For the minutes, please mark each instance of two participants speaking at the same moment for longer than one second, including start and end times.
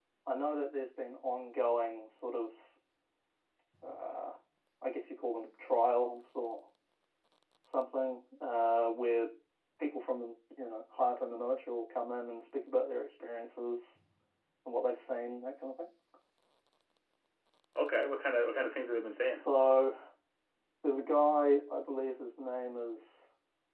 none

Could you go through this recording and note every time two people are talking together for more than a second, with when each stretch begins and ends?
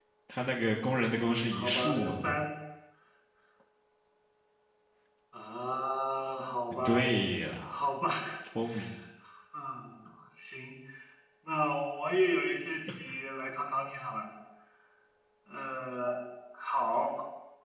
1.0-2.3

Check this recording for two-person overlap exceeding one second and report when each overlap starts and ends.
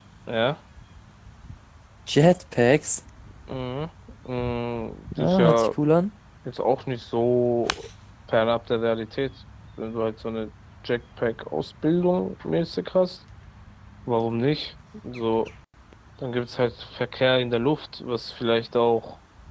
none

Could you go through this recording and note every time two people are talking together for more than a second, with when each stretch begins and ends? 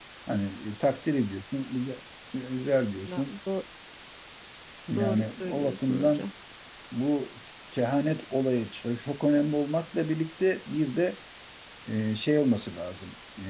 5.0-6.2

